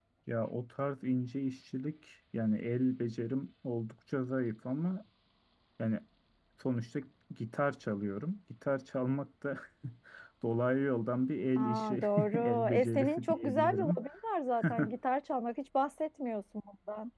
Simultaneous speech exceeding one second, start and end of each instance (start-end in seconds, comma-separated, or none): 11.6-14.0